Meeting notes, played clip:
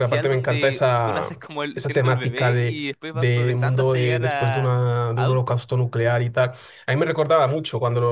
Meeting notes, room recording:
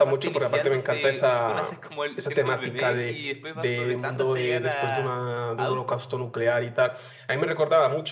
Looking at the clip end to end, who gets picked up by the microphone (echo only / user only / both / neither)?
echo only